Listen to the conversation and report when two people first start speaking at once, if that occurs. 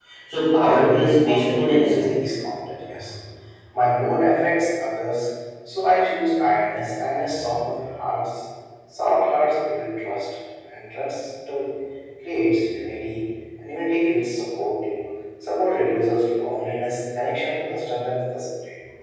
0.6 s

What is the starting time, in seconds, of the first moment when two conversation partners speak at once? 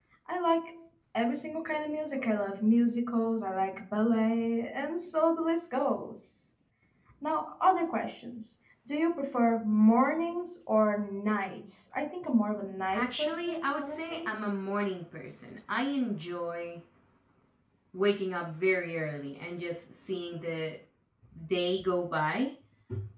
12.9 s

